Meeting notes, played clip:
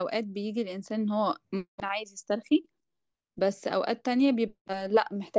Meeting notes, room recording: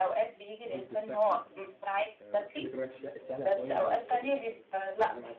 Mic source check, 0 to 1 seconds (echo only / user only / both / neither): both